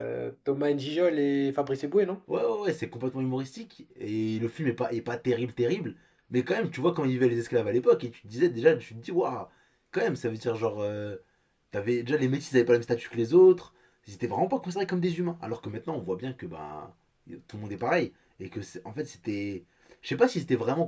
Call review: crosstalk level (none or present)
none